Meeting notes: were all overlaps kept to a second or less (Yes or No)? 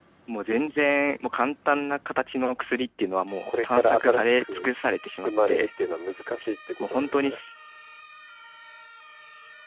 No